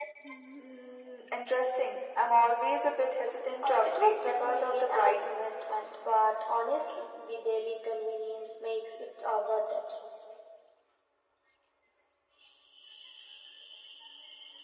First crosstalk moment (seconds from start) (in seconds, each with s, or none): 3.6 s